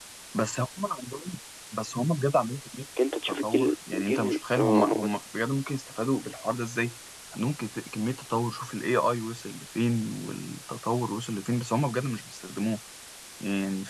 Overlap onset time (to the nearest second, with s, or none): 3 s